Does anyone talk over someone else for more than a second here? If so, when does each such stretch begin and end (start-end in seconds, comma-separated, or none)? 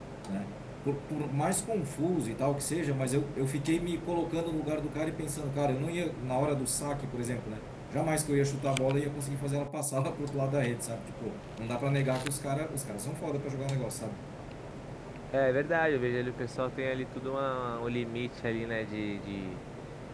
none